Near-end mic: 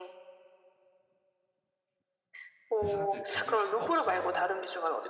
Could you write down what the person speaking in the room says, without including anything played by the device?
그 사람들 건들 수가 없어.

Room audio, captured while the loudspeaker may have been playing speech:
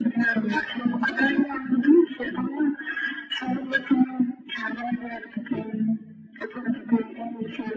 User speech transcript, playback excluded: none

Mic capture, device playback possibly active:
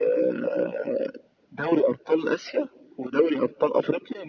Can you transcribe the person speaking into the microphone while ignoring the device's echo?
none

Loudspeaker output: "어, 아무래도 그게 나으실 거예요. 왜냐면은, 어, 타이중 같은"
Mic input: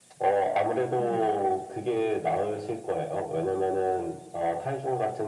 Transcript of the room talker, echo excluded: 음.

